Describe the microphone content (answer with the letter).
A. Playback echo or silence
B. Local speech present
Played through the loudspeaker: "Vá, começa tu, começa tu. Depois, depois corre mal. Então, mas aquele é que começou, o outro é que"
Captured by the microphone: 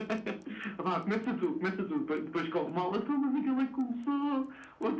A